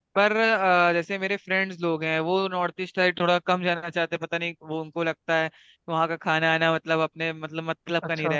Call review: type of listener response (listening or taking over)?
listening